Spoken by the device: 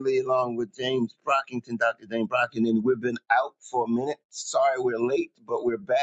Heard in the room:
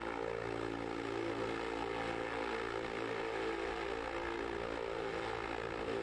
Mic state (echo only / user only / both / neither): neither